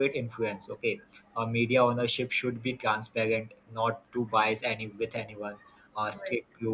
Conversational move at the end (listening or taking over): listening